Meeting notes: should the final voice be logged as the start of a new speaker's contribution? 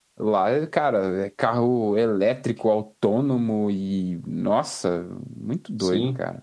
Yes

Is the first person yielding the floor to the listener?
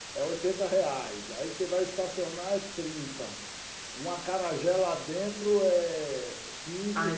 Yes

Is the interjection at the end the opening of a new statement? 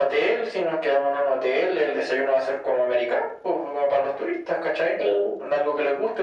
No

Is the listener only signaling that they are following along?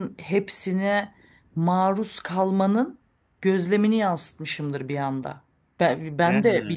Yes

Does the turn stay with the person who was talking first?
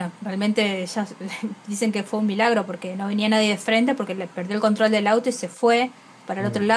Yes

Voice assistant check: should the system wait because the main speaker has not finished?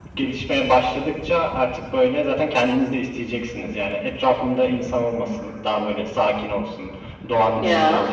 Yes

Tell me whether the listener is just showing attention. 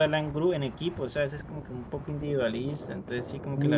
No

